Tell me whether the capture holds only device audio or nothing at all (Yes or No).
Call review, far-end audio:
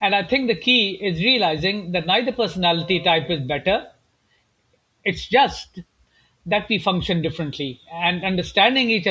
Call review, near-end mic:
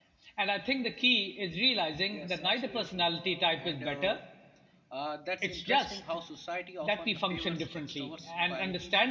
No